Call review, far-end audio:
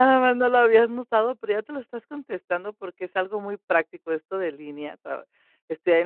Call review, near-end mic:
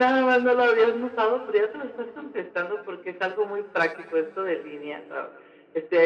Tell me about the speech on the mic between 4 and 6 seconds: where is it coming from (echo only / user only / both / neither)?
echo only